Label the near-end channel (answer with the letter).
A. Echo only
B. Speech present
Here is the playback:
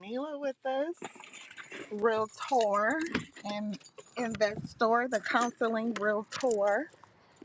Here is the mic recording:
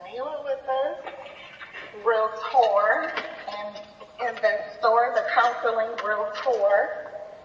A